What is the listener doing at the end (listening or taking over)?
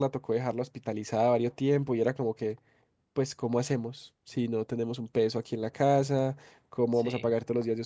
listening